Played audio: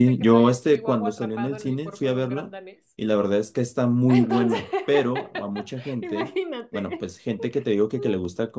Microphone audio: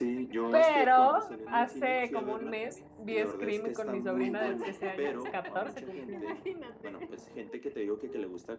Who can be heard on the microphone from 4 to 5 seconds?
both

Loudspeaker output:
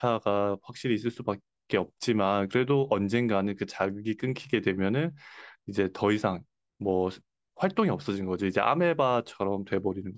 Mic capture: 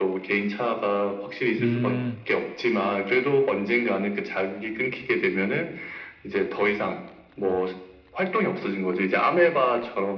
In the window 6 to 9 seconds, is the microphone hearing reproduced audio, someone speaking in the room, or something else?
echo only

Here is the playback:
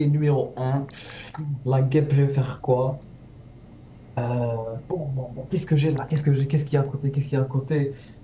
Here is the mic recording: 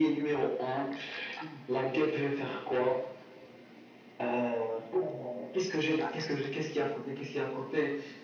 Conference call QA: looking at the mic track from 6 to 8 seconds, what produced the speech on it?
echo only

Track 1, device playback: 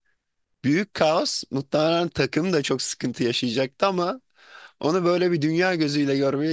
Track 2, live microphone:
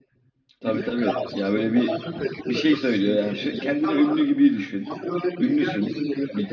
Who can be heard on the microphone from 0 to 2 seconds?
both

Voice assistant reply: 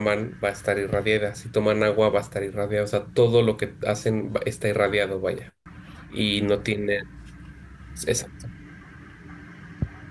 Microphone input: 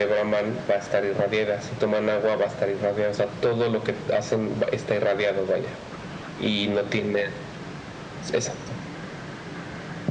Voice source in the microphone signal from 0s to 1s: echo only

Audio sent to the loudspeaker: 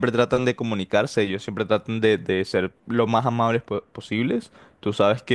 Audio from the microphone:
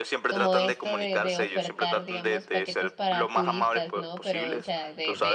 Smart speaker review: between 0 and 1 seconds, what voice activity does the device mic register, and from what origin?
both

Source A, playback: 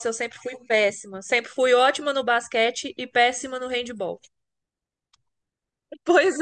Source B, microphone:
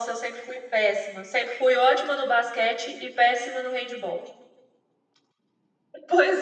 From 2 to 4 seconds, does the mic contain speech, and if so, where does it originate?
echo only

